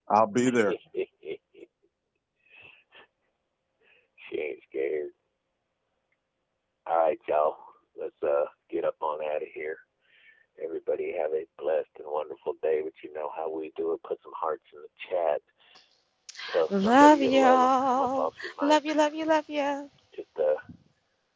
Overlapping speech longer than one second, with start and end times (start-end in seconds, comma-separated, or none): 16.7-19.0